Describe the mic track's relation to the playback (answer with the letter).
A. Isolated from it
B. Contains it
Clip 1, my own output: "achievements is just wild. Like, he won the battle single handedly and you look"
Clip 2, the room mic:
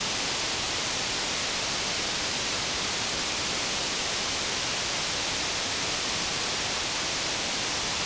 A